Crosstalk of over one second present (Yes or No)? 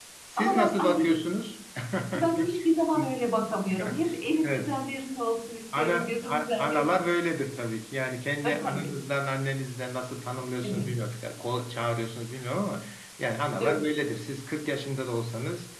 Yes